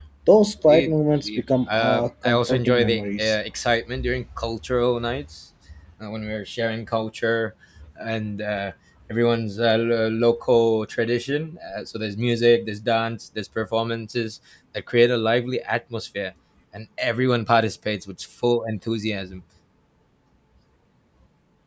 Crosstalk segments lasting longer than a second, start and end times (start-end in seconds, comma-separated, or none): 0.7-3.4